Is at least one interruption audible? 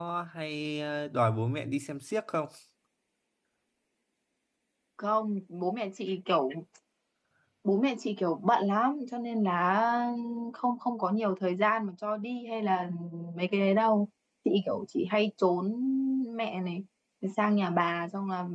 No

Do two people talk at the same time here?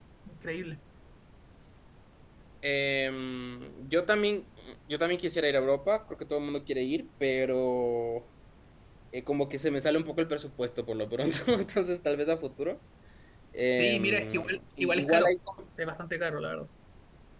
Yes, from 13.8 s

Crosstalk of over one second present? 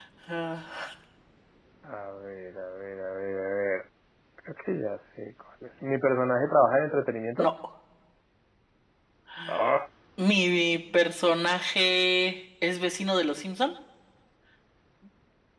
No

